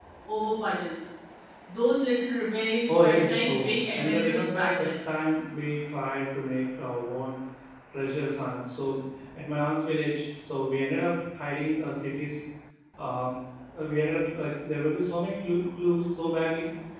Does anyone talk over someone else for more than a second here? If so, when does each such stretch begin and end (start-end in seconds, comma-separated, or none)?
2.9-4.9